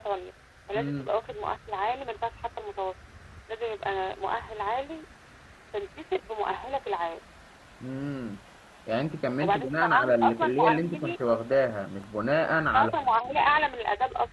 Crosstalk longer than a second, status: present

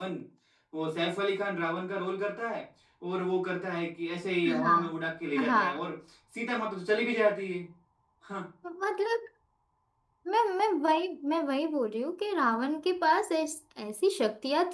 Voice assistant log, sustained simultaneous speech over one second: none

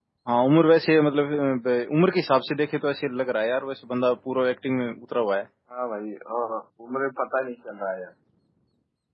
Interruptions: none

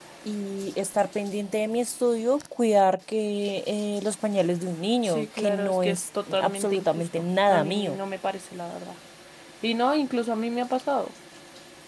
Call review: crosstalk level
present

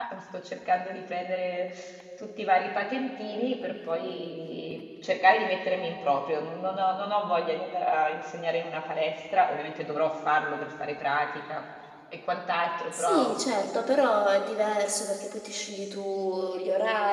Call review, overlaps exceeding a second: none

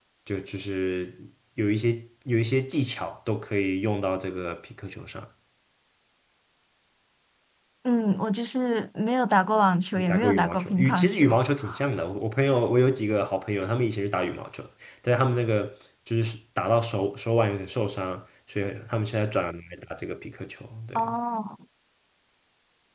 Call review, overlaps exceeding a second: present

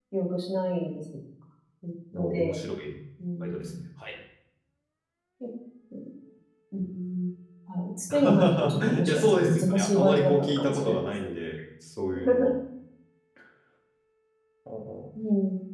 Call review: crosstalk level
present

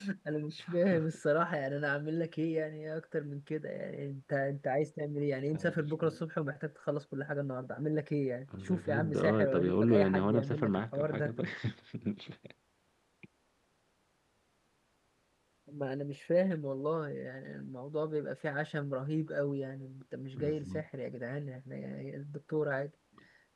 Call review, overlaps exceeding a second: present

